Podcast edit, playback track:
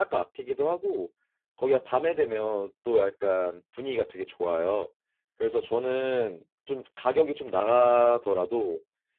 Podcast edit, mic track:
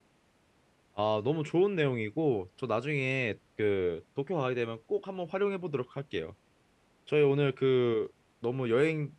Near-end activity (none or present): present